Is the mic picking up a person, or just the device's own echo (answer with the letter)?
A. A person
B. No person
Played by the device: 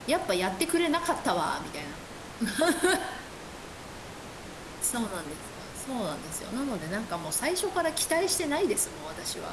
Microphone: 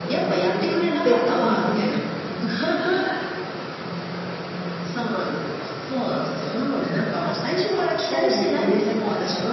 A